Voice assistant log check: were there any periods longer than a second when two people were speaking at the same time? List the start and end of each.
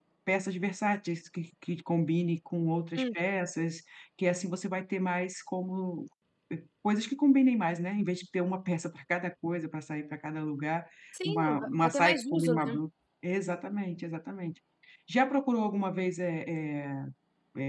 11.2-12.8

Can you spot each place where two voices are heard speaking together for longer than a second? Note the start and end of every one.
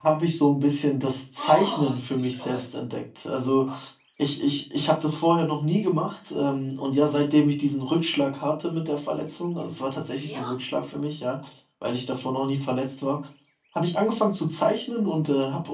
1.4-2.6

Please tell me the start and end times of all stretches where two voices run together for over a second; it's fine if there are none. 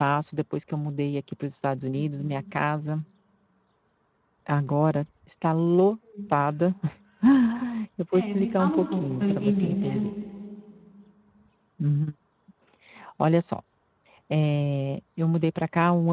8.1-10.1

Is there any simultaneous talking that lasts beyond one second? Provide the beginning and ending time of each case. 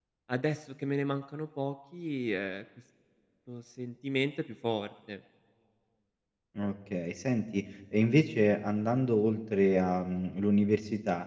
none

